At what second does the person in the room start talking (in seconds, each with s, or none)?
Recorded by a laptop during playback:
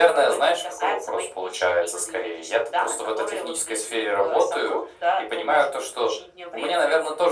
none